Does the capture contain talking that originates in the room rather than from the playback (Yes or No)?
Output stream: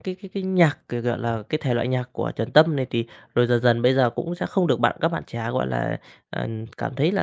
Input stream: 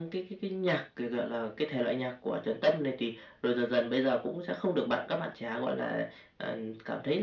No